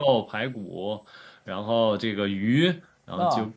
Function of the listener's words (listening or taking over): listening